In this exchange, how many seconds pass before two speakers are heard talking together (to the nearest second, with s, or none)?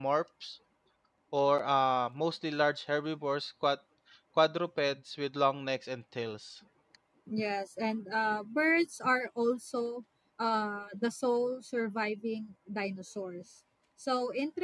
none